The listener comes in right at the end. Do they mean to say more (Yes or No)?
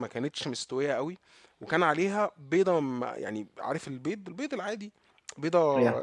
No